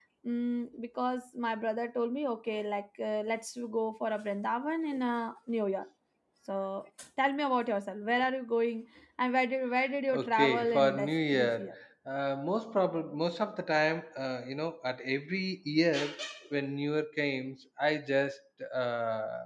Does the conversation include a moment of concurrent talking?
Yes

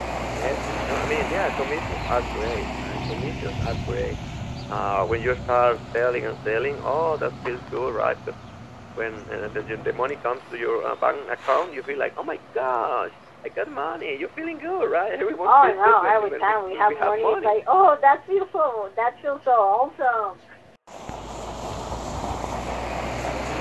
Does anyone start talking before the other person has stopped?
Yes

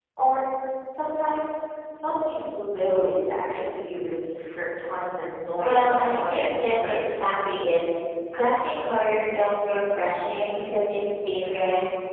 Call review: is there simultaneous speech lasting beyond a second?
Yes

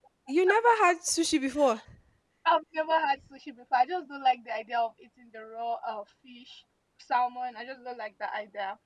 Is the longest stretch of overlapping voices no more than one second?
Yes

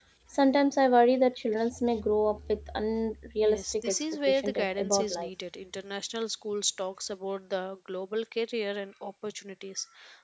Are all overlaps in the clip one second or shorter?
No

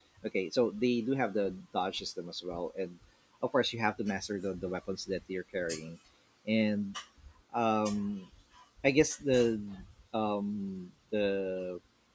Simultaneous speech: No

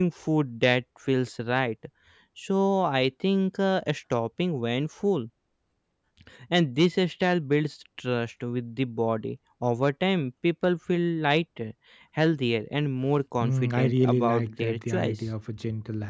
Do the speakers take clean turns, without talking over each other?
No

